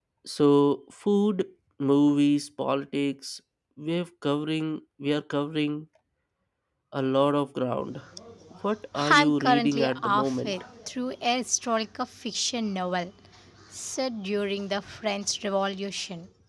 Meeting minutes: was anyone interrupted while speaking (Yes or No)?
Yes